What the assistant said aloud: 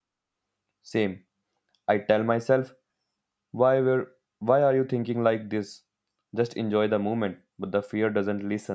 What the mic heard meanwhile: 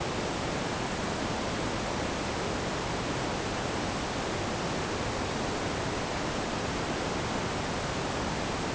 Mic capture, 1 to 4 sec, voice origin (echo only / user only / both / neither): neither